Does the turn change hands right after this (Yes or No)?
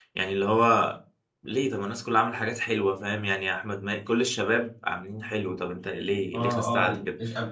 Yes